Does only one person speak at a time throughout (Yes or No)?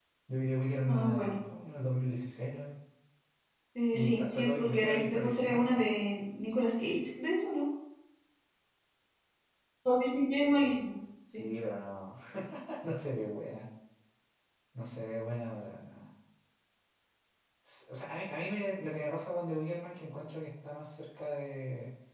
No